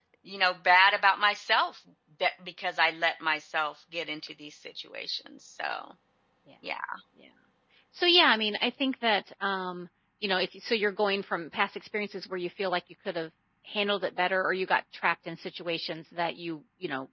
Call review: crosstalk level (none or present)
none